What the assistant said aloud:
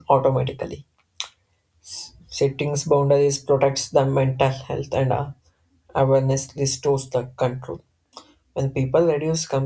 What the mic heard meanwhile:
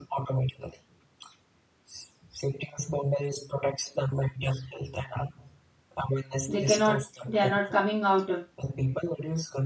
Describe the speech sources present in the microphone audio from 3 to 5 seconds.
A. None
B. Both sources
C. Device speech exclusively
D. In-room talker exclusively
C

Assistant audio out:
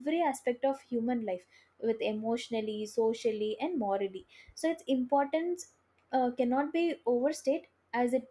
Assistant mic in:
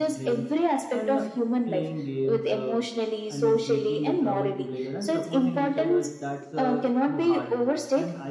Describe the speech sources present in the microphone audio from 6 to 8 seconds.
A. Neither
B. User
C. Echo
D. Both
D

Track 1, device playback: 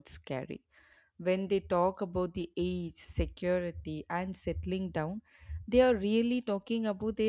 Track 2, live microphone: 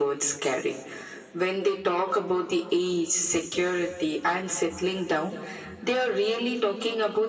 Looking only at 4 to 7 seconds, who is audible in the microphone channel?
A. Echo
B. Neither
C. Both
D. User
A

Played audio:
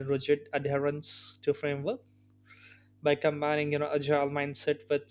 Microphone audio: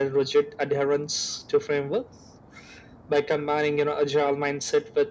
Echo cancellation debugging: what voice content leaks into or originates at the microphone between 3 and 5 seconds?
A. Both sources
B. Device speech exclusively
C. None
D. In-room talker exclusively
B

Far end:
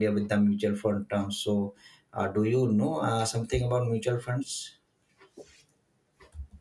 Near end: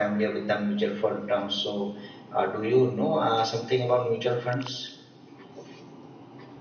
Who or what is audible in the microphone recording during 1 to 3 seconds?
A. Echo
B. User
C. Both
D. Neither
A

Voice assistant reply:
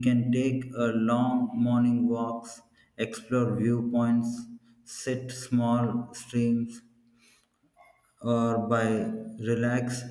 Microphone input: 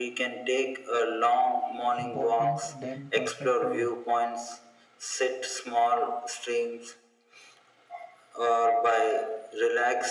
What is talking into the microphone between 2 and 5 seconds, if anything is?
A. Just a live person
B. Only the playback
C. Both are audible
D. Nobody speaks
C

